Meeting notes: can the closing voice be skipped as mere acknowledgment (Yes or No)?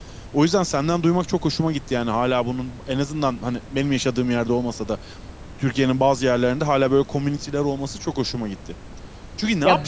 Yes